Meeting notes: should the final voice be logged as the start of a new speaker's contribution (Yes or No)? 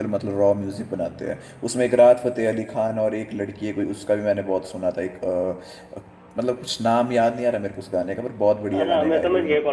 Yes